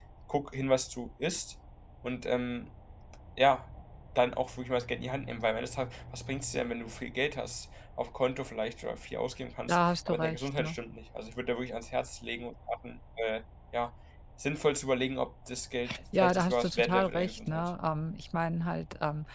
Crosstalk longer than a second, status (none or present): present